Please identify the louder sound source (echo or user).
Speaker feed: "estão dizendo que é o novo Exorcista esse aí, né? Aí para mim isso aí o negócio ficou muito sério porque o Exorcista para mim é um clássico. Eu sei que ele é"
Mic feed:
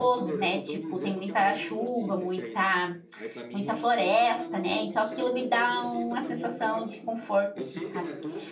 user